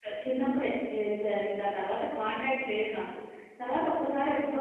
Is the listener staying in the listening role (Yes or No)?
Yes